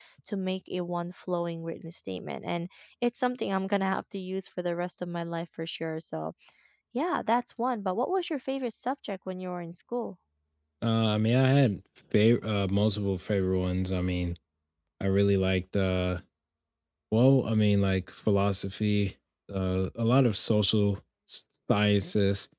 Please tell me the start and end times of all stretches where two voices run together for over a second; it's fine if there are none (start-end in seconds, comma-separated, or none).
none